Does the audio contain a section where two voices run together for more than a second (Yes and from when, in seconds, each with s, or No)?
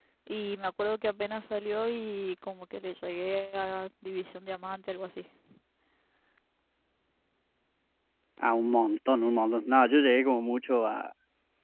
No